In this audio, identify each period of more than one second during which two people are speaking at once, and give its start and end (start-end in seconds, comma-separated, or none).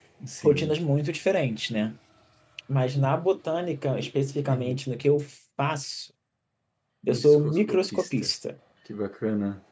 7.1-8.3